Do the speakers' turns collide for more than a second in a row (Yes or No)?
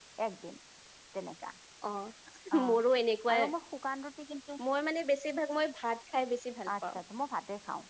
No